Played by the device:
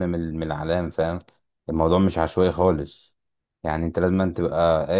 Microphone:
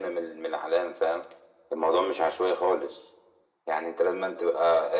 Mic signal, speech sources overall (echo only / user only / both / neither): echo only